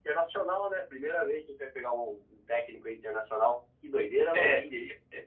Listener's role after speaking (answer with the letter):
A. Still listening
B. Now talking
B